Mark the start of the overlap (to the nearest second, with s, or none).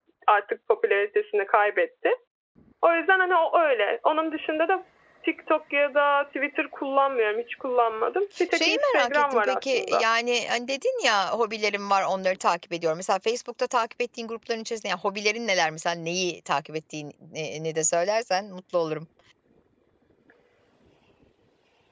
9 s